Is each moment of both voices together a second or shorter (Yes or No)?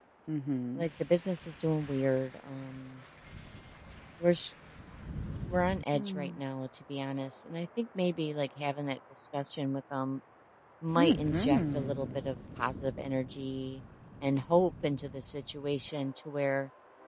No